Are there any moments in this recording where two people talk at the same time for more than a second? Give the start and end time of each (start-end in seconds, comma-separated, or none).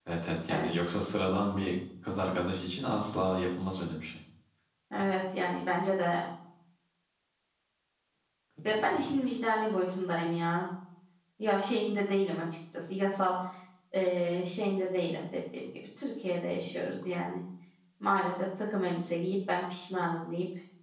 none